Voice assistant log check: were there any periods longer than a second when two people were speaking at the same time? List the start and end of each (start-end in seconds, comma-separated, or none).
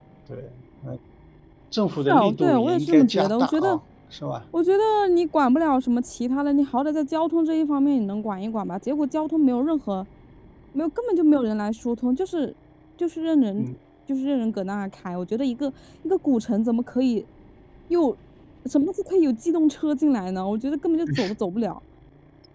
2.1-3.8